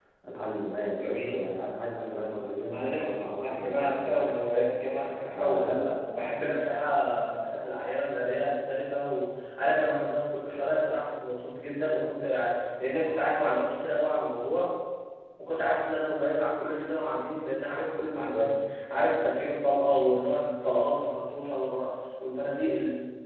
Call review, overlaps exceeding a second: present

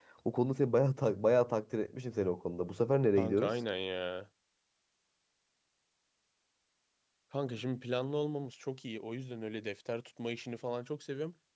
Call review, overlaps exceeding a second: none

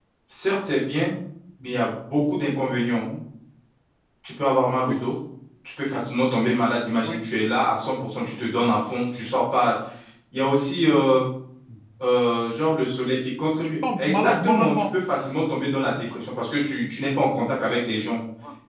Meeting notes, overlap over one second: present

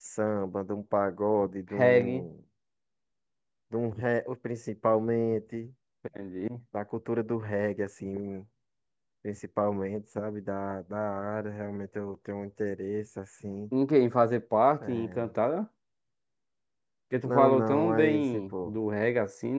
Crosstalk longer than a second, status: present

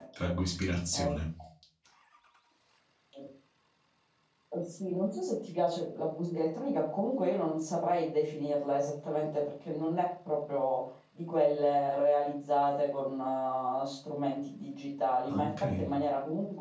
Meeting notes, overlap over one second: none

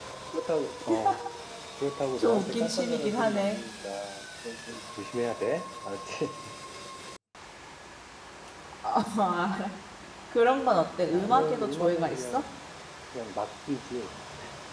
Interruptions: present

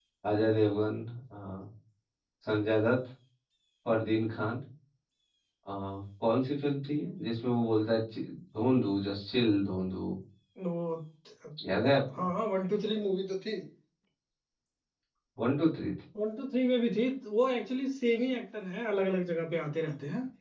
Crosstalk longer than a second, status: none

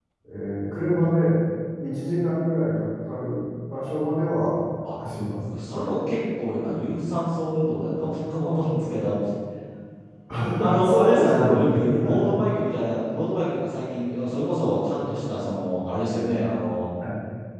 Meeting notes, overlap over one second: present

